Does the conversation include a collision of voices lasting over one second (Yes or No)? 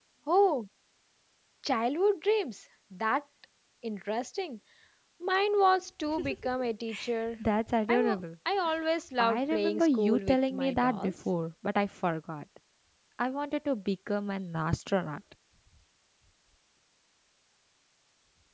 Yes